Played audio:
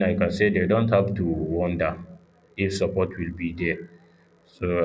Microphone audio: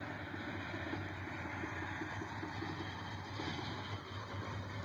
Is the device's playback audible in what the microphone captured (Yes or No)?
No